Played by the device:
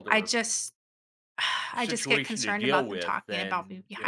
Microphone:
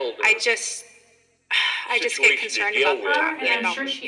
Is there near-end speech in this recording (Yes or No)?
Yes